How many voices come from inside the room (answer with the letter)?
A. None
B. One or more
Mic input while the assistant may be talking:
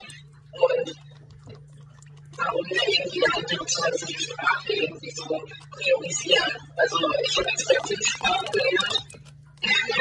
A